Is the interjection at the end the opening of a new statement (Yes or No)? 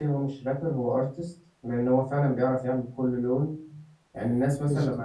No